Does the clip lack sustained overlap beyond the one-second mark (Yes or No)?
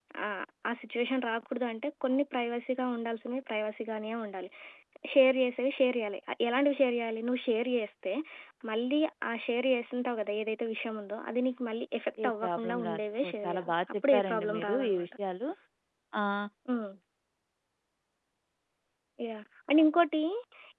No